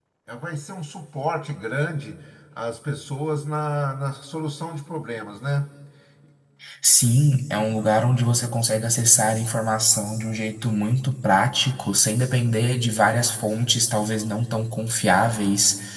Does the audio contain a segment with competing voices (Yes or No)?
No